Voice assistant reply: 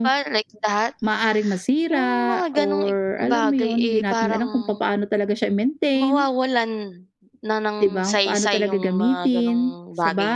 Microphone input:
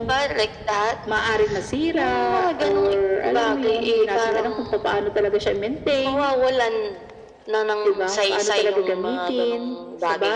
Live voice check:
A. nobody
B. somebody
A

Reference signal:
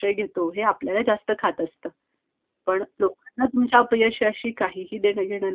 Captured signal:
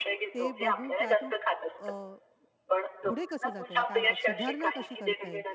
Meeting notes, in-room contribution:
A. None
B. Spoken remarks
B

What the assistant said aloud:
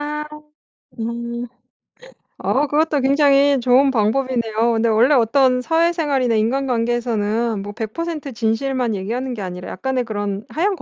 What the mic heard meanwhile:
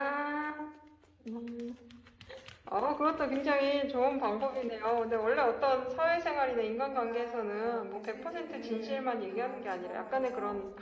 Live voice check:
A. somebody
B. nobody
A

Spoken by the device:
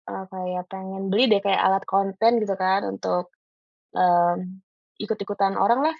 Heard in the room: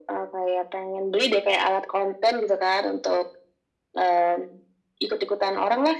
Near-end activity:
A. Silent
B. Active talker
A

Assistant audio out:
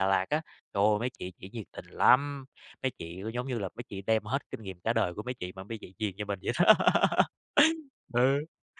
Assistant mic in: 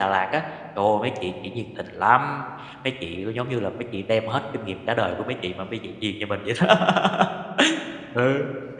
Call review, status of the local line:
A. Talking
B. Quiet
B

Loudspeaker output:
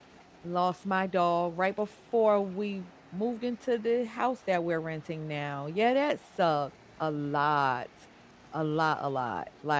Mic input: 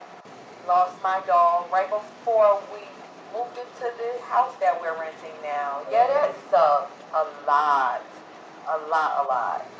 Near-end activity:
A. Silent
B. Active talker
B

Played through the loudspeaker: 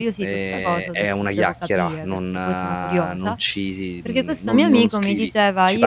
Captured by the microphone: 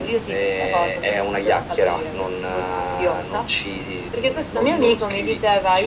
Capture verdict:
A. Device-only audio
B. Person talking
A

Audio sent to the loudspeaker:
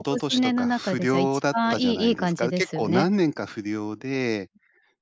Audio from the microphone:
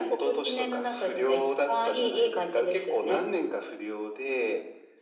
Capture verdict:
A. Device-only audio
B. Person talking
A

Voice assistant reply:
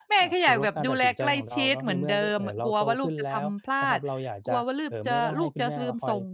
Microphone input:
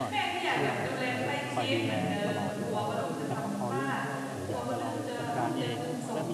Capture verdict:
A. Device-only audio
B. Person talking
B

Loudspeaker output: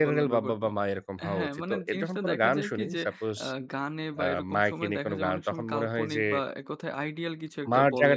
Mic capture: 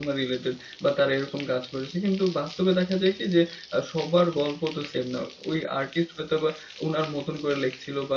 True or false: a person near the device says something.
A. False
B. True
B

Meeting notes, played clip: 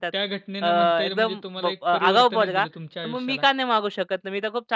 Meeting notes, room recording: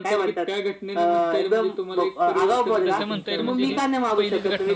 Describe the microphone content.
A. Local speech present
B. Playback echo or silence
A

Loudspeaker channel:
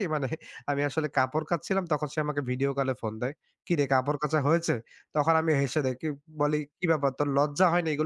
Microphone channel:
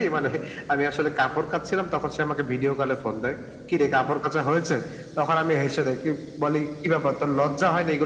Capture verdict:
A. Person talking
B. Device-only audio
B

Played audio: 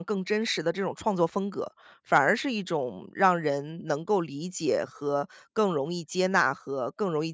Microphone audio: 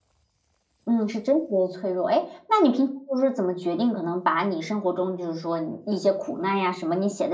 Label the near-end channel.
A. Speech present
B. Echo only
A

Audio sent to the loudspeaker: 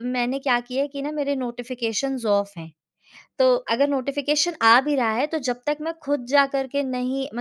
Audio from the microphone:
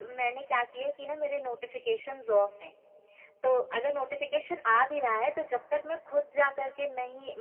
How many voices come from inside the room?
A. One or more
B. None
B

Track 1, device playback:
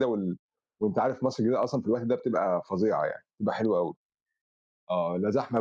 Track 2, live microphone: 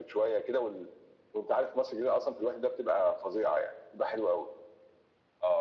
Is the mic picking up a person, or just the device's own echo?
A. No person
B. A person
A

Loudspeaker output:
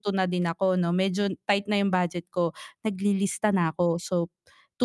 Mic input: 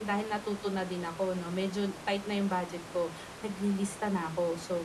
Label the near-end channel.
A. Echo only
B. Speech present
A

